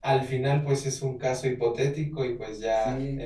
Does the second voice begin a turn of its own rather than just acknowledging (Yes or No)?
No